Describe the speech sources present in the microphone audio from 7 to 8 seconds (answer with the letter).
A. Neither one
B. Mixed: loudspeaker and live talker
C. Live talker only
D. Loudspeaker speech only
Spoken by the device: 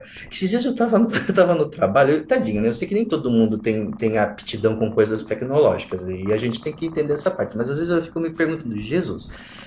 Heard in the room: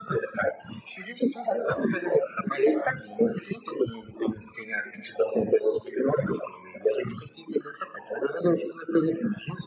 D